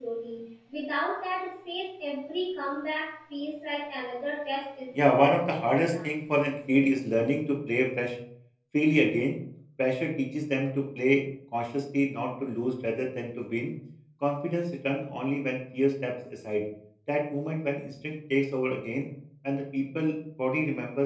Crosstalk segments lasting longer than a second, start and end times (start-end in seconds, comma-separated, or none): 4.9-6.2